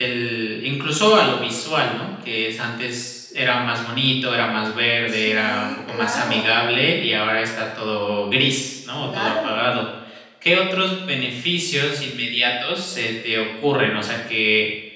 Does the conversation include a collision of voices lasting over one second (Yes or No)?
Yes